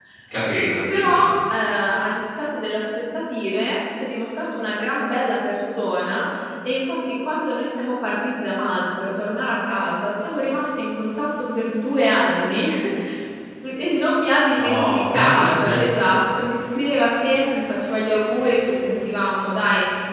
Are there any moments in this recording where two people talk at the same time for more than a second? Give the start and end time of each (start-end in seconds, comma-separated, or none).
14.5-15.8